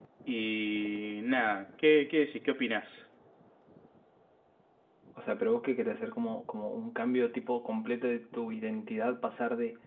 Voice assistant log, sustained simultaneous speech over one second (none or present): none